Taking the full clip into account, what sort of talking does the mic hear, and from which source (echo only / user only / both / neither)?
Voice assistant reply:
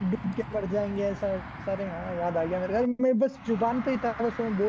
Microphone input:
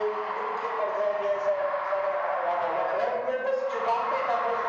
echo only